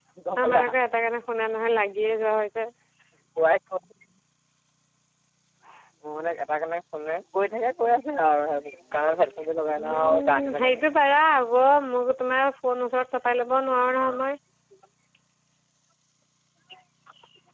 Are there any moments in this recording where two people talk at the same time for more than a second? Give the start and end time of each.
9.8-11.2

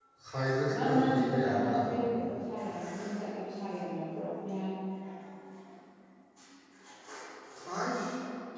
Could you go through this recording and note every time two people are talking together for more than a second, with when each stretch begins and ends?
0.7-2.0

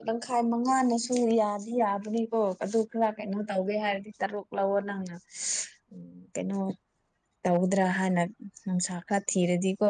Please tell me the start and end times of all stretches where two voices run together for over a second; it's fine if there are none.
none

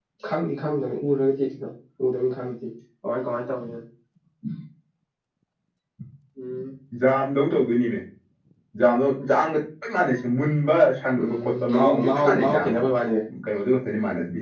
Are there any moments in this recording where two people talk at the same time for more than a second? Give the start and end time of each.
11.2-12.8

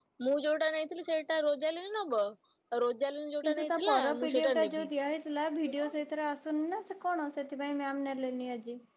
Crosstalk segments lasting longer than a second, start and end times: 3.5-4.9

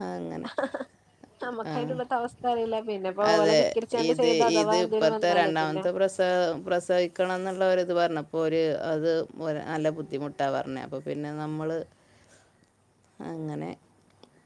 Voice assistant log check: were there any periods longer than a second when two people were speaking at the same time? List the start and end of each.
4.2-5.8

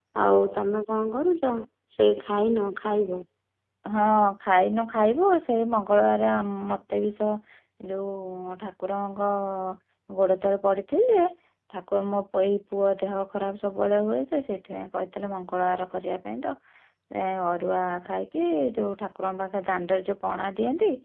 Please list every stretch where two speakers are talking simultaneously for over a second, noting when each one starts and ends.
none

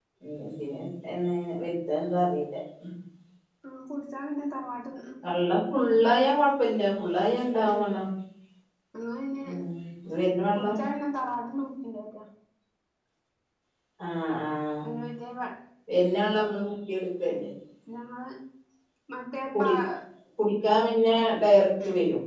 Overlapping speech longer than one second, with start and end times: none

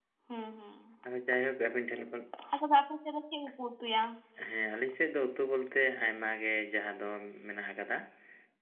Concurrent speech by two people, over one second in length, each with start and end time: none

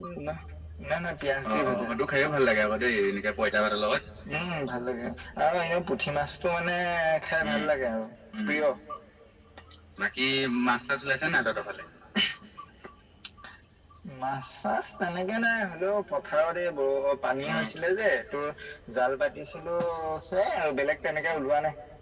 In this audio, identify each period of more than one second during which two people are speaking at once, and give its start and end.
none

